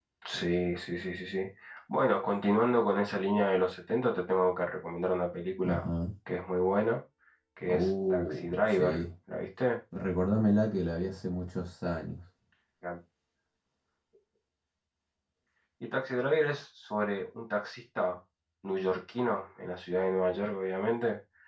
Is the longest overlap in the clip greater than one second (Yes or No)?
Yes